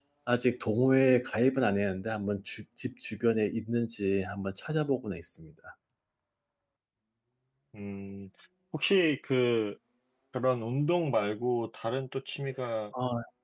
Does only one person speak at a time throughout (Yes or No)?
Yes